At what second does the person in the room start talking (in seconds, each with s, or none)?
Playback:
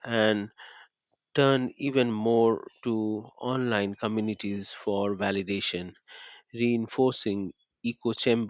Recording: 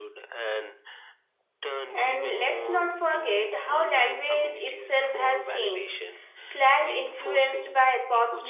1.9 s